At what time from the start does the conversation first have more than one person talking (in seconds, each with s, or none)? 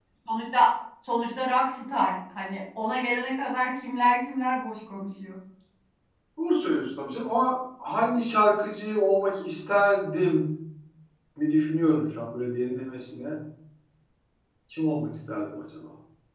none